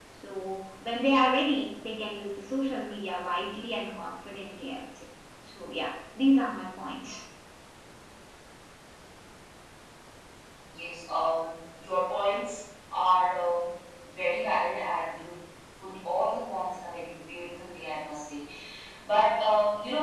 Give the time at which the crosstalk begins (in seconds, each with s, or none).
none